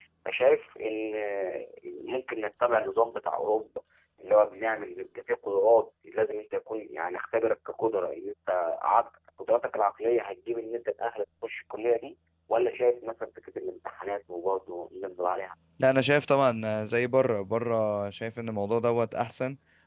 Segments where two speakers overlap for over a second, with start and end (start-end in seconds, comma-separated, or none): none